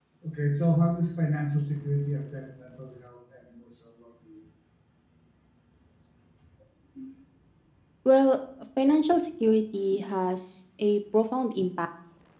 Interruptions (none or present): none